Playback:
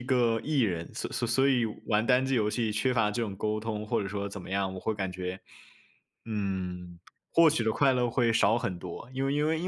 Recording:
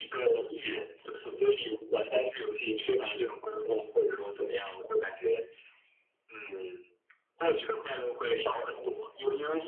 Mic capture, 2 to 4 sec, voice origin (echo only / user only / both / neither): echo only